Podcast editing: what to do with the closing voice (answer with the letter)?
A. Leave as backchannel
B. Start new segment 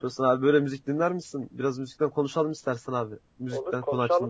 B